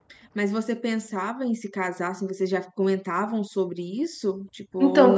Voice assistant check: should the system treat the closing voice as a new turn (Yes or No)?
Yes